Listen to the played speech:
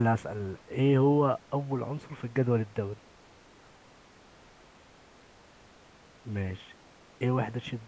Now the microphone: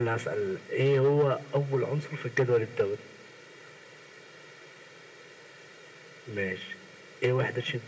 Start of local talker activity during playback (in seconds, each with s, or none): none